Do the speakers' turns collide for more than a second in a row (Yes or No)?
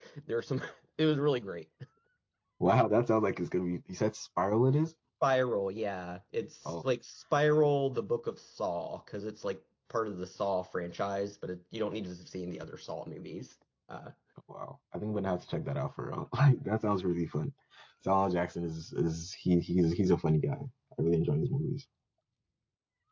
No